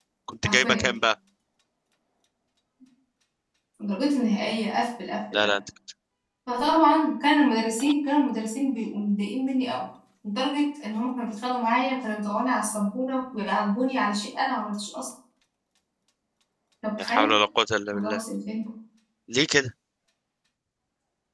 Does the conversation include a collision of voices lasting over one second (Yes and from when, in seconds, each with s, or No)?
No